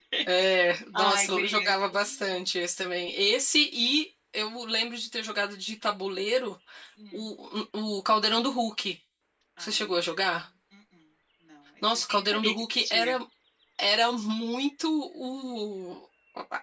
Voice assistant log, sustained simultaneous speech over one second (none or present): present